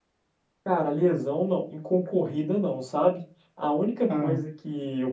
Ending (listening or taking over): listening